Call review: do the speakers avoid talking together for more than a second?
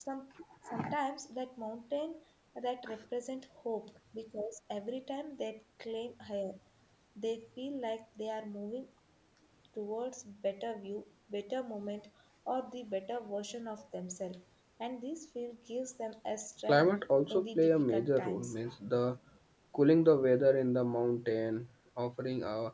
No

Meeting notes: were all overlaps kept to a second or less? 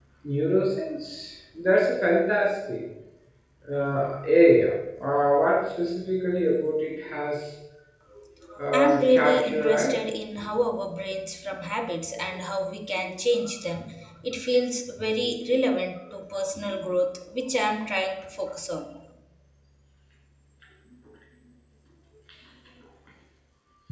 No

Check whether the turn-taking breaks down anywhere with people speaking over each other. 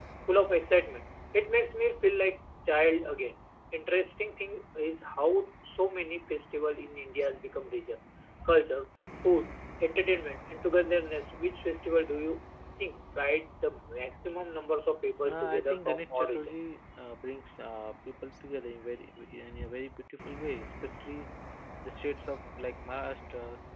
Yes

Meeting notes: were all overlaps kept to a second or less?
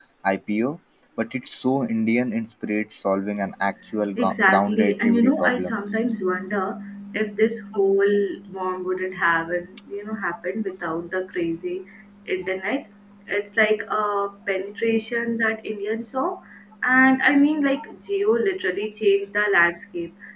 No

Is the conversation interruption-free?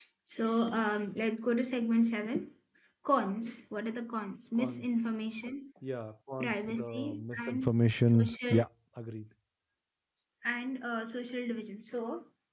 No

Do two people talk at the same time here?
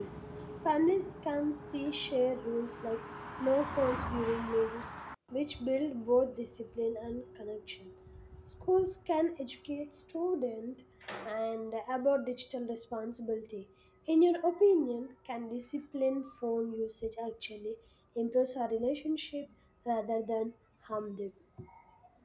No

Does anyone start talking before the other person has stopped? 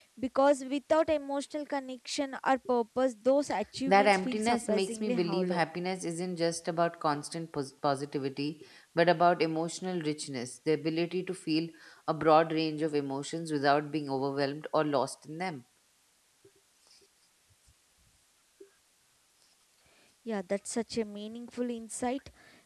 Yes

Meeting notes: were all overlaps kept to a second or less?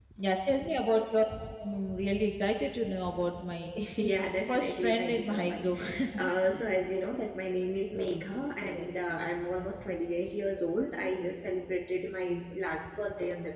No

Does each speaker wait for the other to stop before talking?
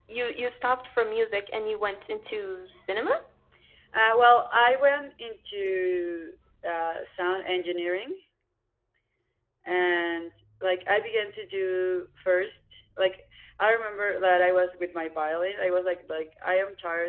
Yes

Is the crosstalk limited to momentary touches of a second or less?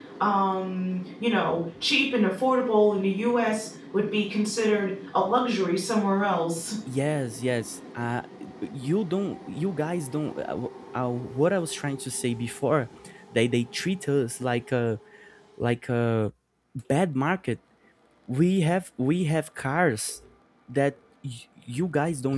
Yes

